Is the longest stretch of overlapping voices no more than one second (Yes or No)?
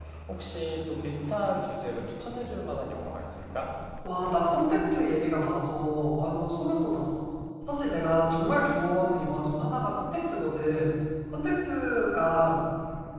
Yes